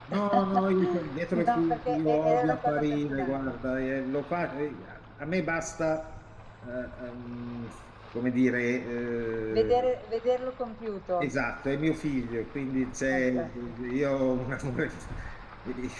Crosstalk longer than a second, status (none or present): present